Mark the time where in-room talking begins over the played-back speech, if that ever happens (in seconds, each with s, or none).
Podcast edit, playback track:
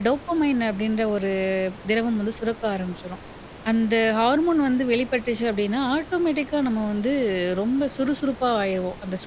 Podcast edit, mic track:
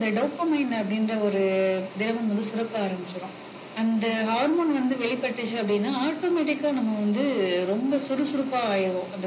none